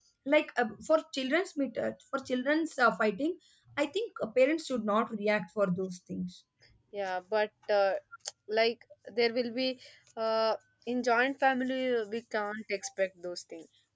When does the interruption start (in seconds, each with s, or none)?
none